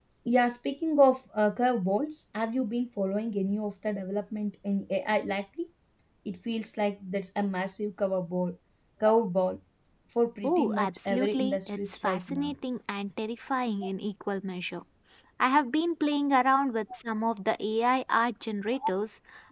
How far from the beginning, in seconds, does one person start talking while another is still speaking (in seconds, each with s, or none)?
10.4 s